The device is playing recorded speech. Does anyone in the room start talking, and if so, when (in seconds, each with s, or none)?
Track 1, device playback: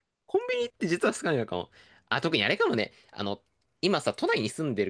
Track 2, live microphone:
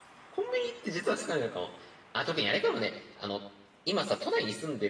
none